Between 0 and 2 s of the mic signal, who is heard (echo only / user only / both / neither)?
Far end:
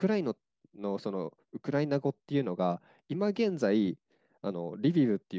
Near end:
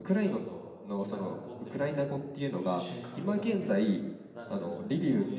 both